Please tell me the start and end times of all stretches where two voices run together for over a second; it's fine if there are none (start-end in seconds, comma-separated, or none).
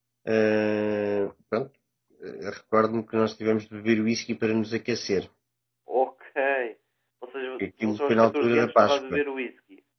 7.8-9.2